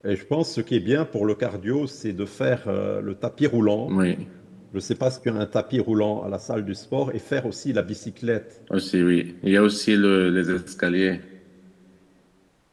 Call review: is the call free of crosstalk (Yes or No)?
Yes